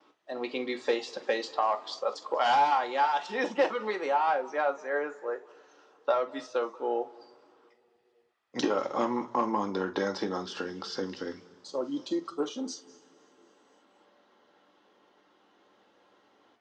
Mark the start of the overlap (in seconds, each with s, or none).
none